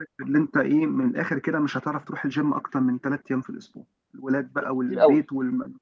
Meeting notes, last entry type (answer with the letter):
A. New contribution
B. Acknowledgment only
B